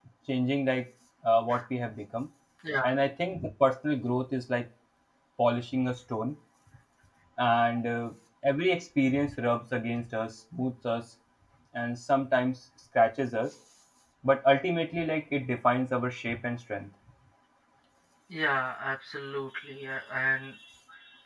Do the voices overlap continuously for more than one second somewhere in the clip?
No

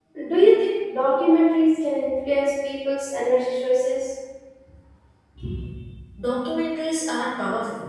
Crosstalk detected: No

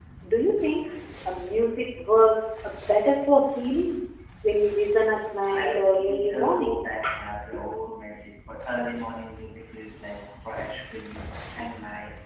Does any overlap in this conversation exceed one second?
Yes, from 5.4 s

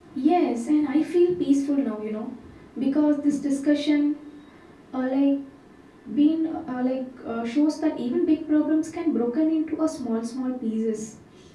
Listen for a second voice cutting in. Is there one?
No

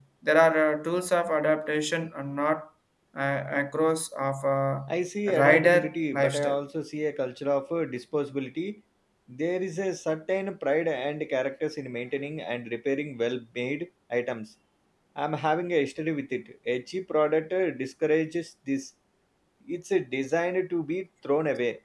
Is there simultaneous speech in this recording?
Yes, from 5.3 s

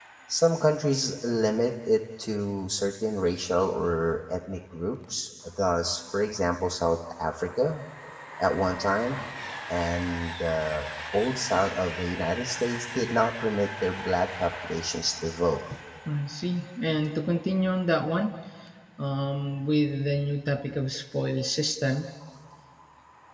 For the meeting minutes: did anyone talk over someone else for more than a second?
No

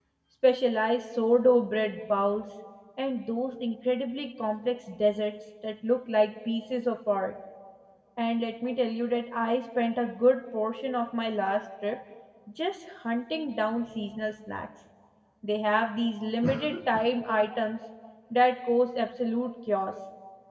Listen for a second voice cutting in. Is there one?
No

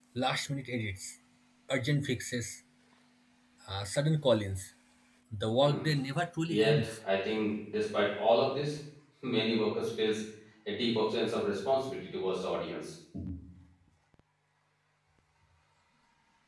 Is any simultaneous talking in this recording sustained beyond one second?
No

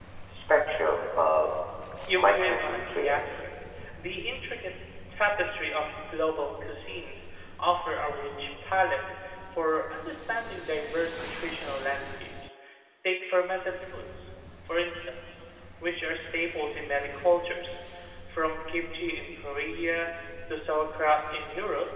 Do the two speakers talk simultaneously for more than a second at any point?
Yes, from 2.2 s

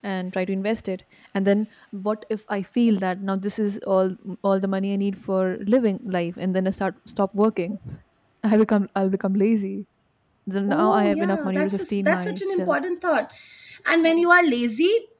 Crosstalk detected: Yes, from 10.7 s

